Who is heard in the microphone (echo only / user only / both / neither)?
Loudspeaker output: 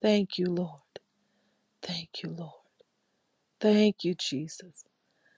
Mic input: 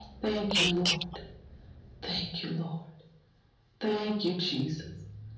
both